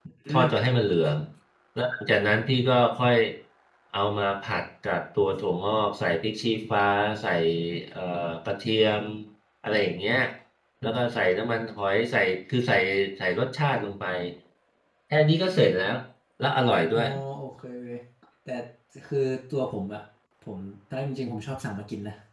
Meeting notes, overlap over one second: none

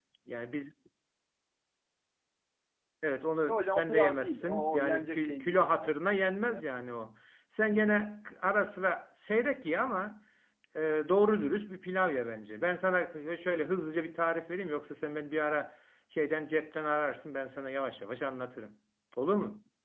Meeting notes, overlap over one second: present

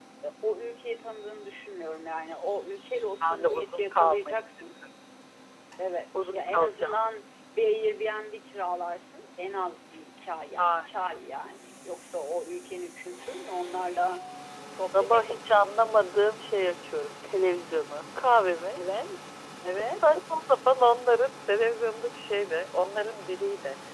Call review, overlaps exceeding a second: present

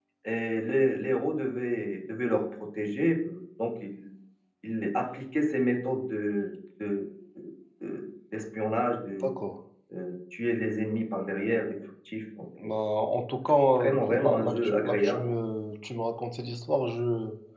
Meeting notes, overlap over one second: present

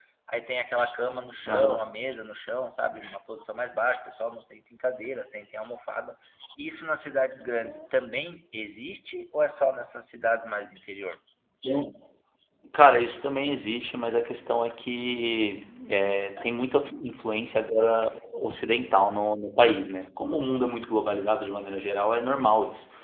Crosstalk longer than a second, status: none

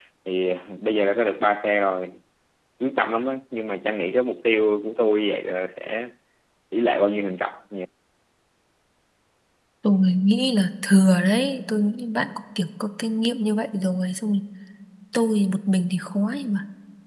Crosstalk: none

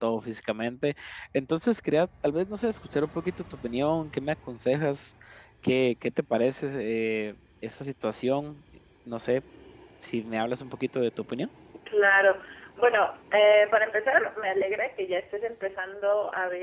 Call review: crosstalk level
none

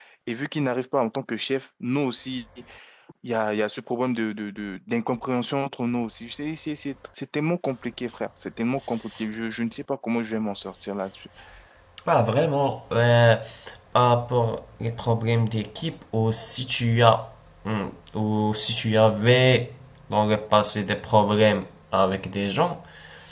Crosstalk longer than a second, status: none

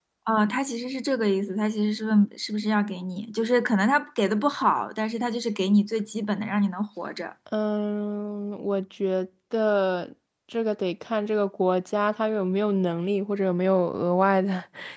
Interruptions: none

